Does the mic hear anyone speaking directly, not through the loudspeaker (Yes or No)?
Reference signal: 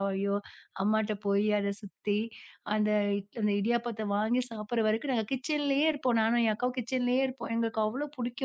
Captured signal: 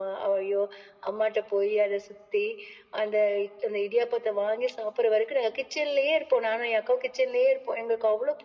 No